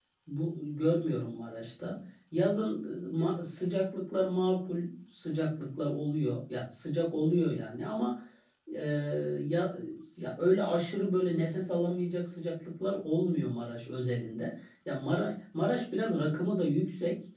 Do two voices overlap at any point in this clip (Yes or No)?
No